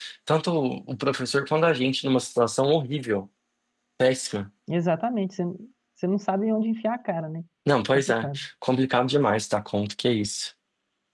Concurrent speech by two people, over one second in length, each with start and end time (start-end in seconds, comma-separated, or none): none